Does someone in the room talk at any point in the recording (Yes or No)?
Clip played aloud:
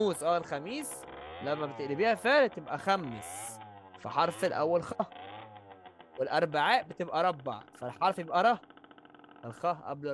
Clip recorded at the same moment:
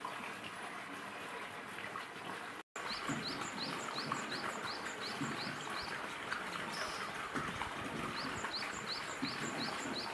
No